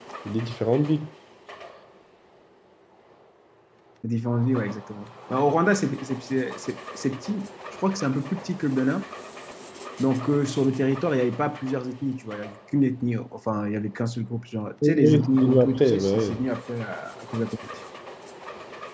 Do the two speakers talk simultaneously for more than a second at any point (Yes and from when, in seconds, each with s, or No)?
Yes, from 14.8 s